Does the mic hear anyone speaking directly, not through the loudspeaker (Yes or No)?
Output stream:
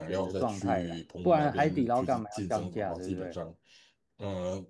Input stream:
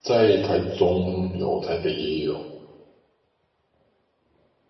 Yes